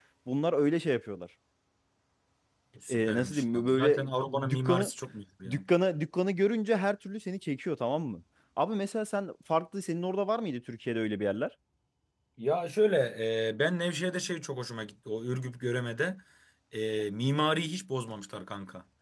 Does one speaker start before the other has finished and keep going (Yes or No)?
Yes